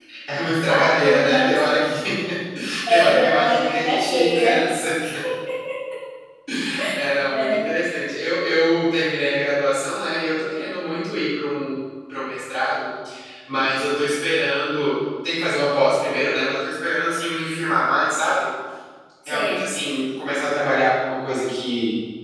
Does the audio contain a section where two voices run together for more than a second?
Yes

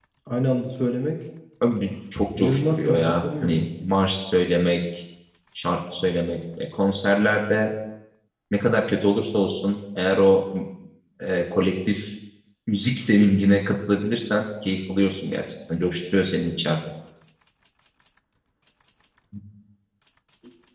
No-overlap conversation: No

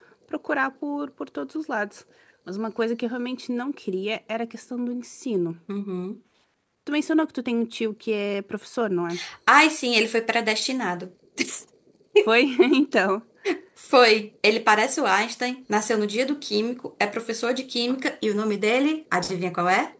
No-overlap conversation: Yes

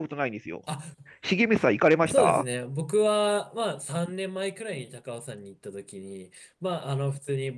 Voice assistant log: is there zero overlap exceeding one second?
Yes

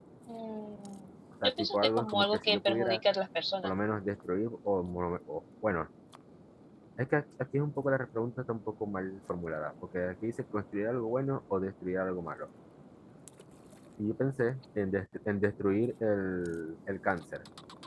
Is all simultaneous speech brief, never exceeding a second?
No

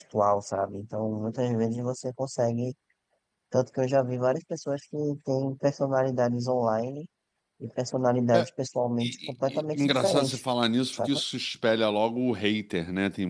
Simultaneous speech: Yes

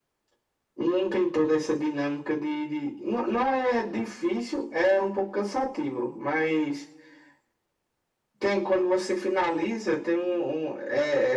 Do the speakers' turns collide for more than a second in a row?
No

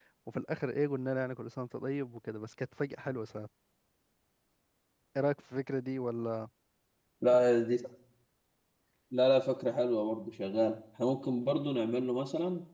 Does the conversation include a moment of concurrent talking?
No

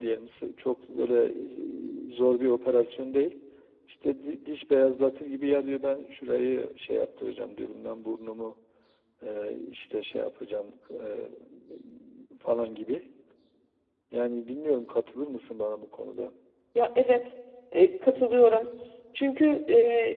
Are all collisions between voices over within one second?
Yes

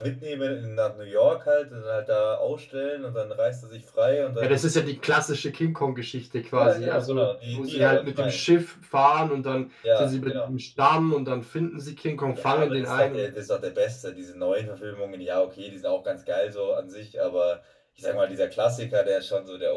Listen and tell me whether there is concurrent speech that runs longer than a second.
Yes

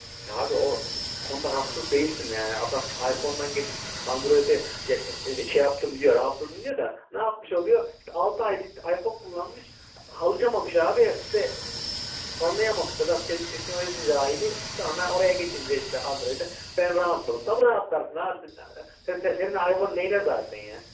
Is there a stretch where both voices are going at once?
No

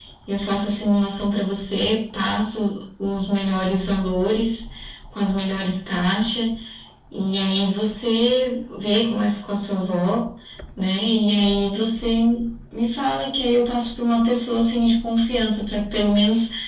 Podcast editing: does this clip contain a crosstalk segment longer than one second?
No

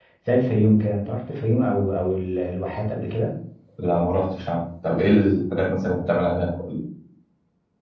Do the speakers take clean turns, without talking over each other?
Yes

